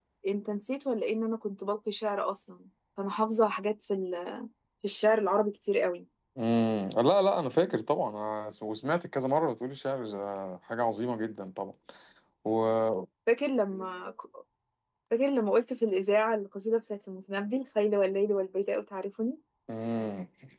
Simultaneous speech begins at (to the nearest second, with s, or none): none